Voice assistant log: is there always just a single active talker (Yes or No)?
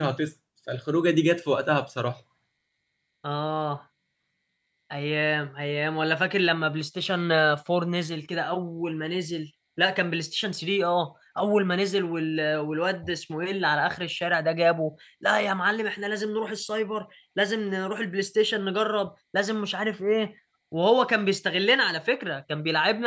Yes